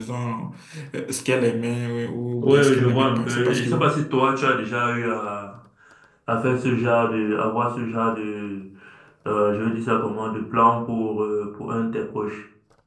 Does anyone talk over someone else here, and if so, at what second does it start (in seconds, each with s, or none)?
2.4 s